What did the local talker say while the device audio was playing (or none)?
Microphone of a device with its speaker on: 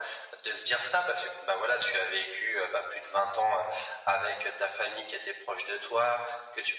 none